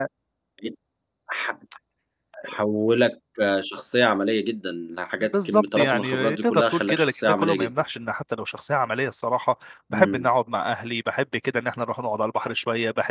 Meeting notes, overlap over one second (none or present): present